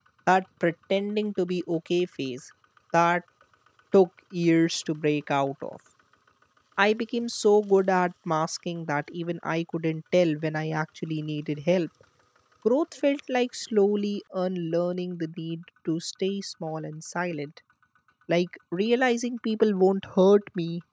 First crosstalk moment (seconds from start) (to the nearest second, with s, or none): none